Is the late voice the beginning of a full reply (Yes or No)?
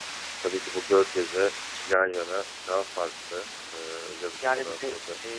Yes